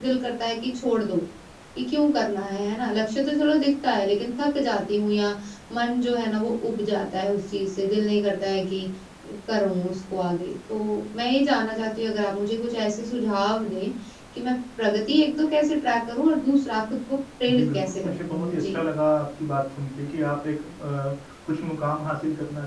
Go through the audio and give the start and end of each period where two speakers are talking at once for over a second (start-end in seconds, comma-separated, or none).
17.5-18.8